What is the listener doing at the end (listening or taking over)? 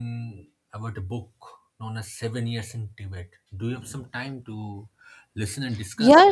taking over